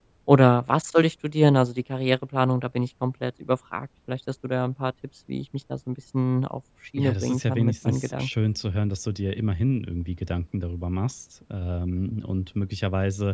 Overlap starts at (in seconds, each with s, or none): 7.0 s